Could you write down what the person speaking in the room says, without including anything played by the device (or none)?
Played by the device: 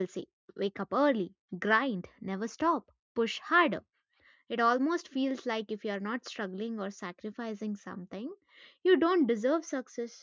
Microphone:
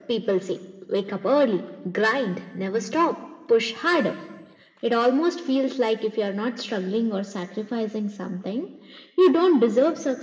none